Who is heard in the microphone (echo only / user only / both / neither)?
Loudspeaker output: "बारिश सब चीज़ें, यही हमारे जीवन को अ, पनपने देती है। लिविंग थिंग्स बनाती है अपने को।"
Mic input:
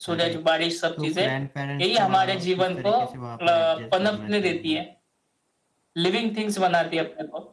both